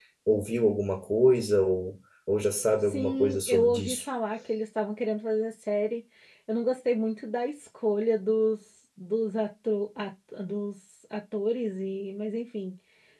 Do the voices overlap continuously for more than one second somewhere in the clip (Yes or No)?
Yes